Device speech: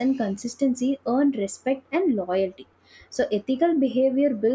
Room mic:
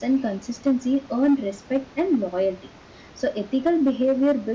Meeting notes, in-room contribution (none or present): none